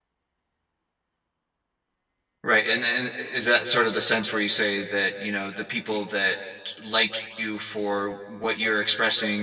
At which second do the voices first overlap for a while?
none

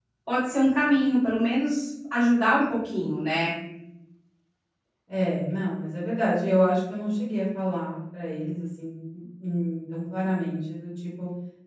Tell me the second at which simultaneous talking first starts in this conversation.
none

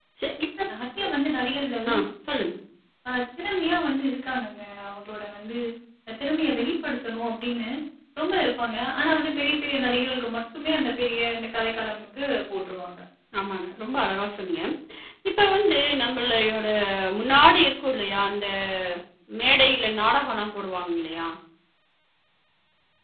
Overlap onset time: none

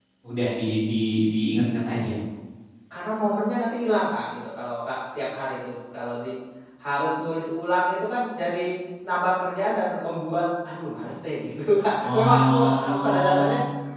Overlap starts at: 12.0 s

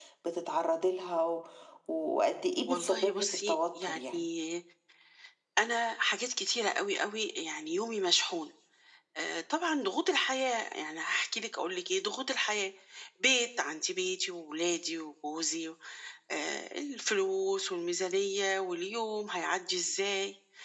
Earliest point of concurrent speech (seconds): 2.7 s

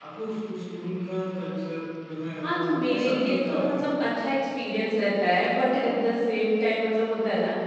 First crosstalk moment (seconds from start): 2.4 s

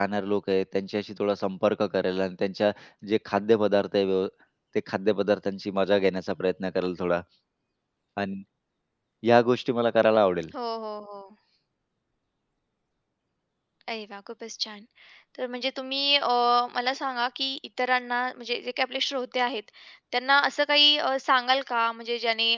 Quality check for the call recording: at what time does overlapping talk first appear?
none

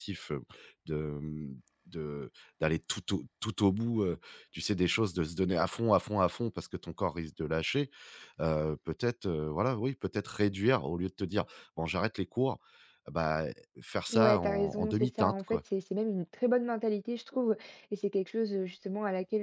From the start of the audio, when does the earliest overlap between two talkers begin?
14.1 s

